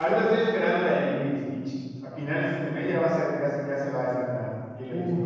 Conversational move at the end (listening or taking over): taking over